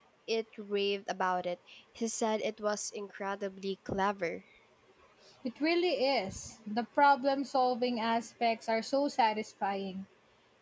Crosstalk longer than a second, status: none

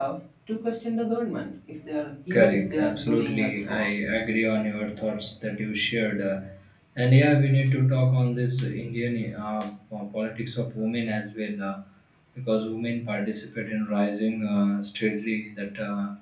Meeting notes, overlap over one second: present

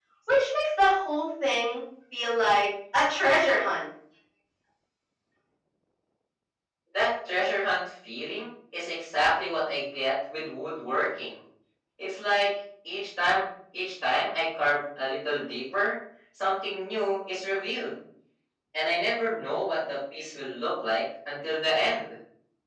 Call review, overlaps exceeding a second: none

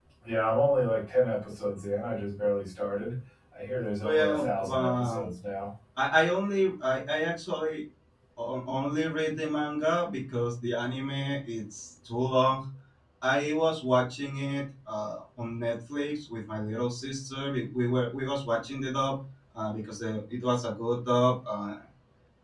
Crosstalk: present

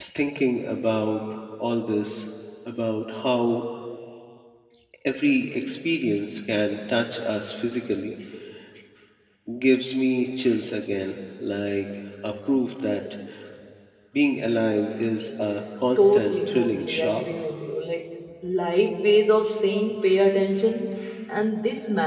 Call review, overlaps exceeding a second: present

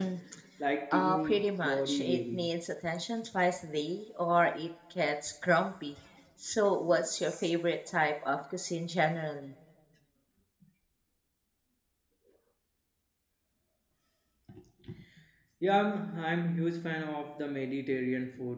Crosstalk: present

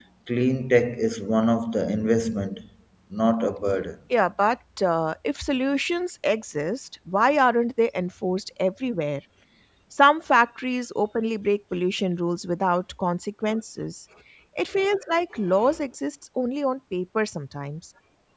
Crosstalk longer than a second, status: none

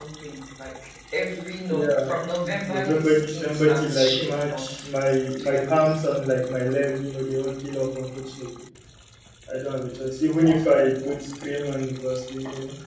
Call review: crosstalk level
present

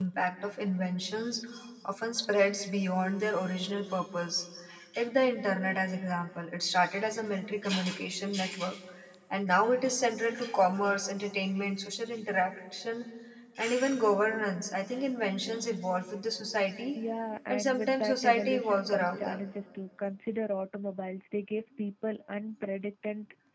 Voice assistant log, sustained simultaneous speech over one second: present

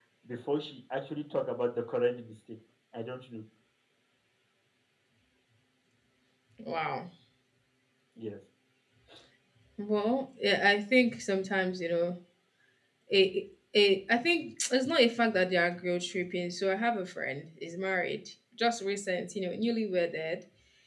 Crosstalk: none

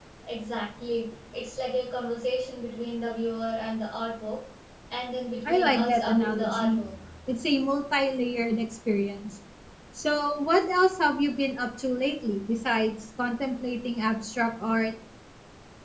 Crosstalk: present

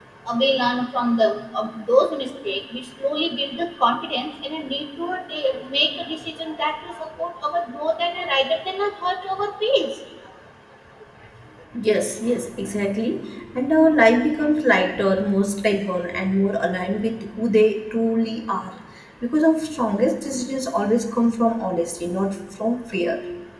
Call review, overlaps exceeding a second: none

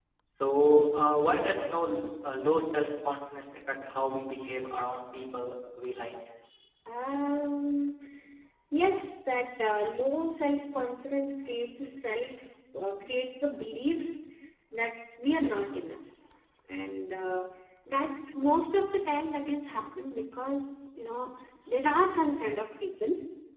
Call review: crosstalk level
none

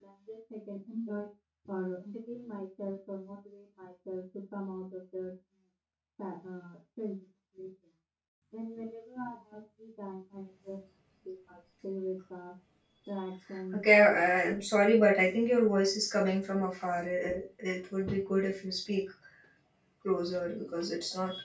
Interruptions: none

